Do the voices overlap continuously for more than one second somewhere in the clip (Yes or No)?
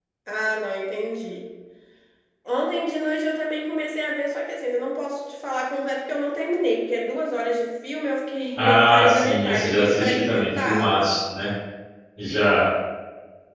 Yes